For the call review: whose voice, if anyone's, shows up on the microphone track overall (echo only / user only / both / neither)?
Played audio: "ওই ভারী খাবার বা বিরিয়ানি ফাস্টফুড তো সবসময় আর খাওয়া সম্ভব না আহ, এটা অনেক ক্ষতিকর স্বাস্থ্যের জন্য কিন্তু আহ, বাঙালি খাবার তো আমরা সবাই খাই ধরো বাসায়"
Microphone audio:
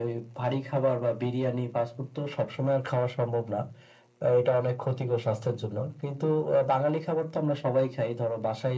echo only